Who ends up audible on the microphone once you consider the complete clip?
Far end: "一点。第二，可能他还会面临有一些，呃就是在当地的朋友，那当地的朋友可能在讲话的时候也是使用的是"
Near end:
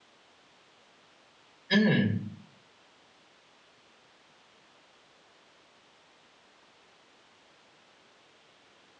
user only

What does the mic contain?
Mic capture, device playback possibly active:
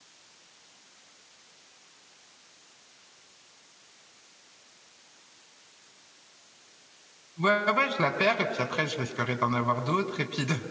user only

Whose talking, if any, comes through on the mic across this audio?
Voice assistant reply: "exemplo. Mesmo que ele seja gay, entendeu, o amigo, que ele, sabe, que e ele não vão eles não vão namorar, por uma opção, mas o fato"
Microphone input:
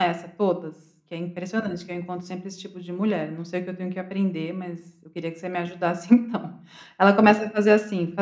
user only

